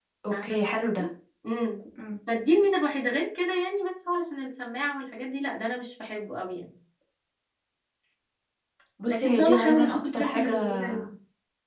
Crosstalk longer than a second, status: present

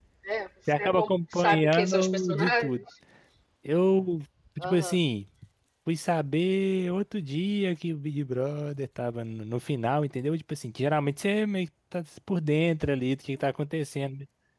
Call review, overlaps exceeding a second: present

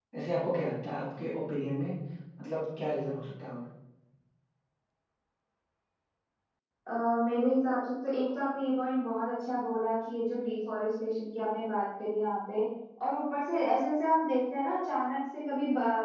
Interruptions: none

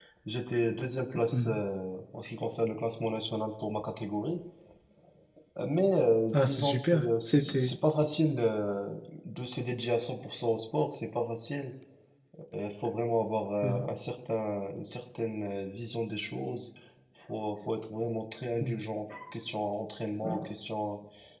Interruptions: present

